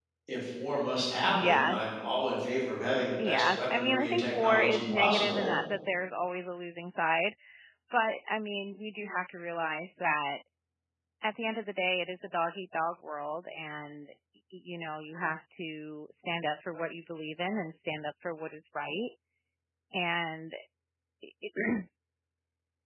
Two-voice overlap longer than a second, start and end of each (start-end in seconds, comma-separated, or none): 3.2-5.5